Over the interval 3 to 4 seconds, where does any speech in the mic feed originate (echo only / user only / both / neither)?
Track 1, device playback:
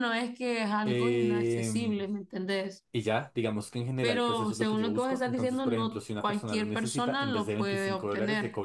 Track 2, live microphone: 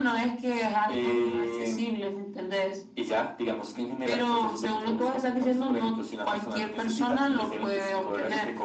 echo only